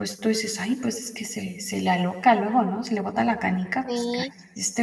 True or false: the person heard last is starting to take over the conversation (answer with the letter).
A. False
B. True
B